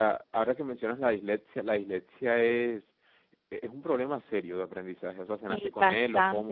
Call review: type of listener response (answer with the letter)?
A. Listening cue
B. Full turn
B